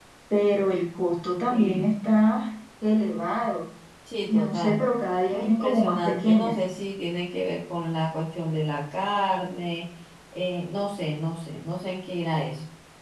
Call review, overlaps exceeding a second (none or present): present